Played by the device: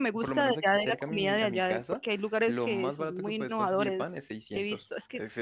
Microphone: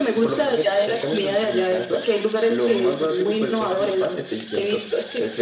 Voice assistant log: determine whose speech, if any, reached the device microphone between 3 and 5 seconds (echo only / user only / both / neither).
echo only